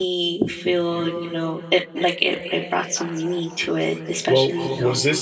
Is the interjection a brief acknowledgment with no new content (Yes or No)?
No